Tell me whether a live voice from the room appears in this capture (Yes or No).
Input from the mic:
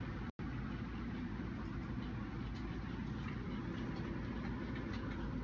No